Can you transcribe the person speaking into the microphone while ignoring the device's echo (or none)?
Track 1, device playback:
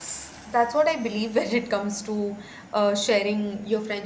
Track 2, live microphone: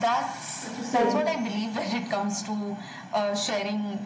what to say